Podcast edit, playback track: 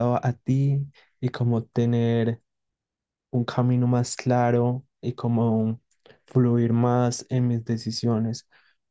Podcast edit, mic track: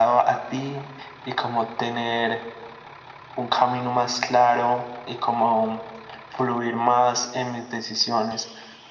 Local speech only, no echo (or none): none